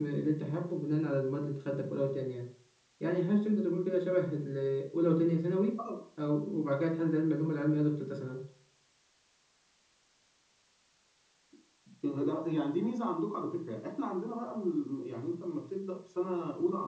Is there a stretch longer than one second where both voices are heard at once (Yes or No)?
No